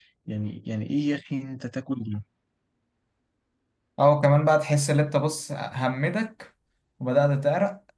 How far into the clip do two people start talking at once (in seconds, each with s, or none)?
none